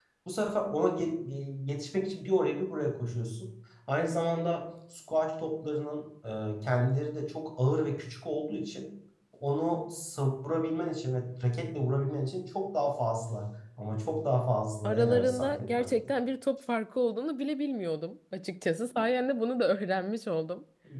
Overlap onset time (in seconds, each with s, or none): 14.8 s